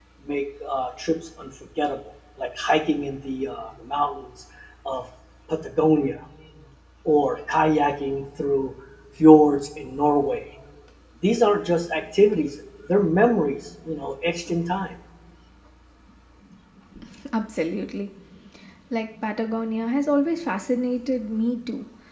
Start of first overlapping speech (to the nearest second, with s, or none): none